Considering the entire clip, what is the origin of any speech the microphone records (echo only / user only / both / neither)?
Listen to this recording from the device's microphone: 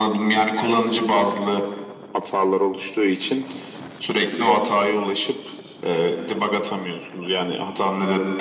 echo only